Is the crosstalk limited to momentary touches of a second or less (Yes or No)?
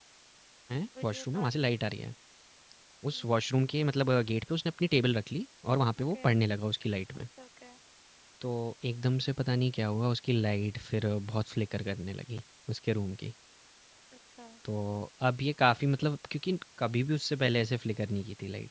Yes